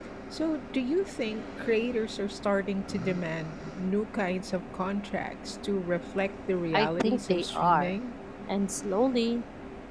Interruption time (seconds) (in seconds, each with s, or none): 6.7 s